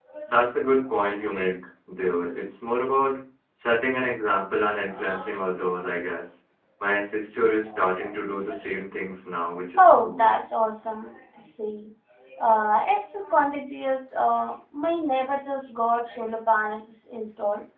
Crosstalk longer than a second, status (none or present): none